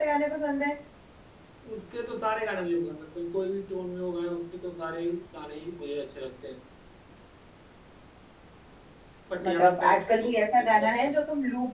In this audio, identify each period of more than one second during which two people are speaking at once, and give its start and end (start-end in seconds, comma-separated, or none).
9.4-11.1